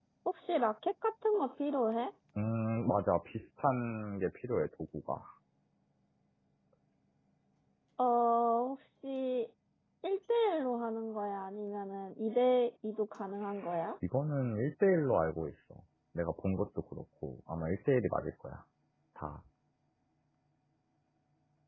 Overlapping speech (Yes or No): No